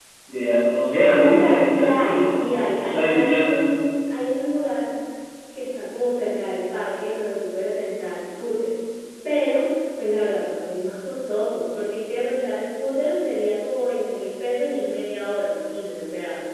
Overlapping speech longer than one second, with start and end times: 1.2-3.6

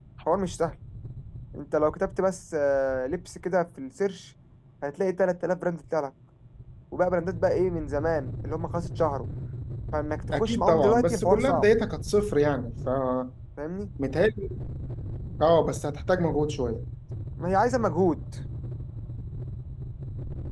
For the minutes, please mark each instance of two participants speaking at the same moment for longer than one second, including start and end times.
10.3-11.6

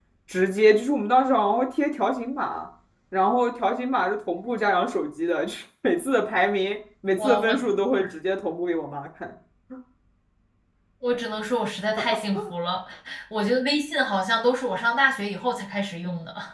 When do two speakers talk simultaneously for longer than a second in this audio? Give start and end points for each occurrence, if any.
none

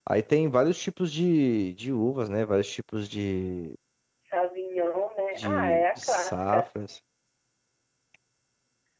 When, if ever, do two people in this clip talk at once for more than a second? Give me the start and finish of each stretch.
5.4-6.6

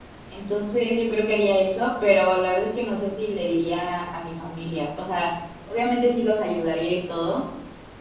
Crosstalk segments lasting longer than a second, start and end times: none

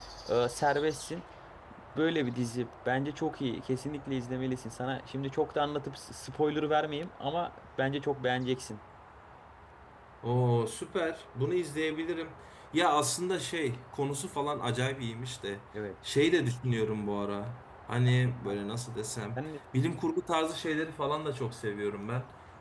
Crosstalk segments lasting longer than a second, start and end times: none

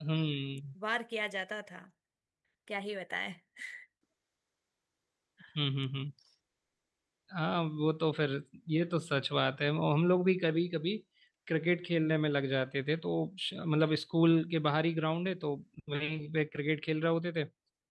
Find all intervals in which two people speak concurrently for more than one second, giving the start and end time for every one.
none

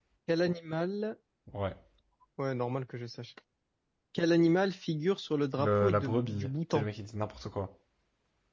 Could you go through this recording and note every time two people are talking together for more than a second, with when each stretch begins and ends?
5.6-6.9

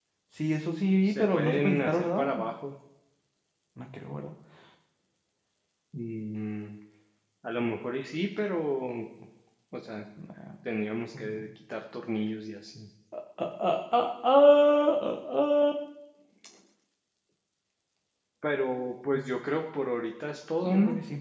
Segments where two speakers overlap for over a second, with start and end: 1.0-2.2

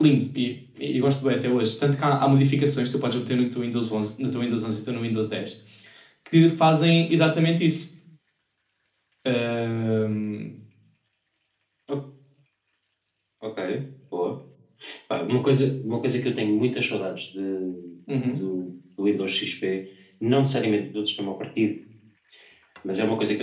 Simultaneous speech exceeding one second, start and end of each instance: none

